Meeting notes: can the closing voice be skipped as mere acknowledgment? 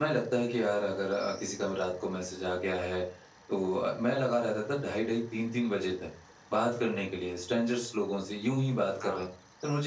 Yes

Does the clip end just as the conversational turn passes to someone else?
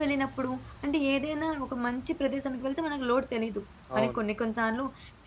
No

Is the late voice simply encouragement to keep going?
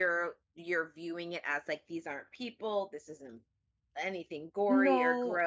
Yes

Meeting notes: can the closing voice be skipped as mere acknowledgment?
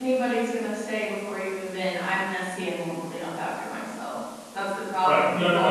No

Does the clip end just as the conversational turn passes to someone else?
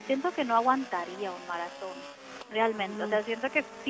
No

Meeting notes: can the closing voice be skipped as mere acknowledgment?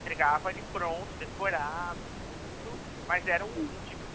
Yes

